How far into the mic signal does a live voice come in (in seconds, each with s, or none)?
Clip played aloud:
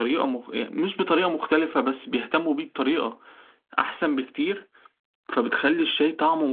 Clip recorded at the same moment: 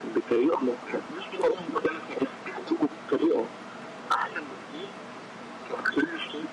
none